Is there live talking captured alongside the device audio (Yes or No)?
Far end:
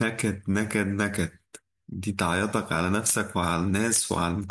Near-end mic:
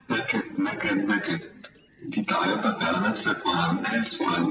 No